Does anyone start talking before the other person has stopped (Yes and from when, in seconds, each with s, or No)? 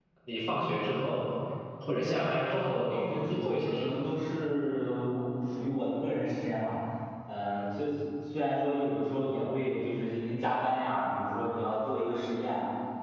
Yes, from 2.1 s